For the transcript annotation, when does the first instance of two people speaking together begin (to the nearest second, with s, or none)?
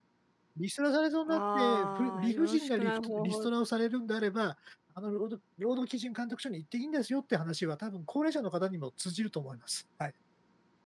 1 s